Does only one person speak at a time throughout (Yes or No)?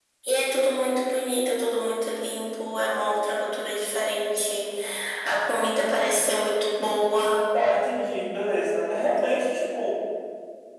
Yes